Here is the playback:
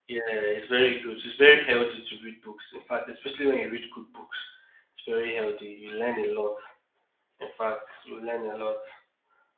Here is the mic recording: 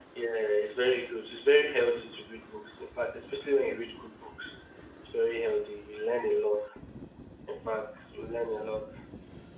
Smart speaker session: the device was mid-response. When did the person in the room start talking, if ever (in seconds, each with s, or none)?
none